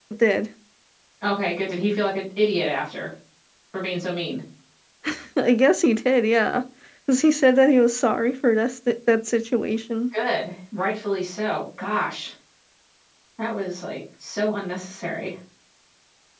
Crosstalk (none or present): none